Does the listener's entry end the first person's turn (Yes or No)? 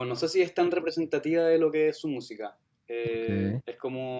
No